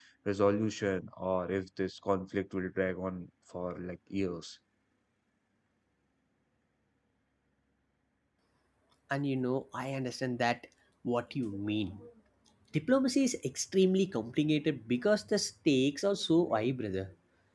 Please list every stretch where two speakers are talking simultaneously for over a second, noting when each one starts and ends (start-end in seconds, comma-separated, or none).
none